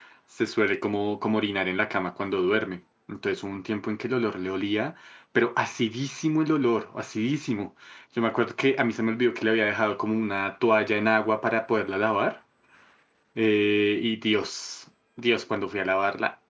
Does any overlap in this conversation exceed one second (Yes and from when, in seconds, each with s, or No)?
No